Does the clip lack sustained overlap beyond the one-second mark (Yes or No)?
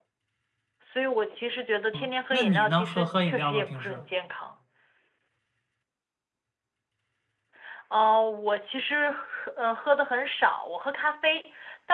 No